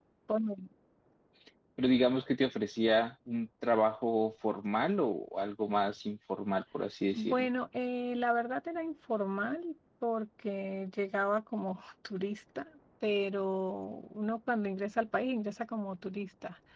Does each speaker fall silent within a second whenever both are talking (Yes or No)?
Yes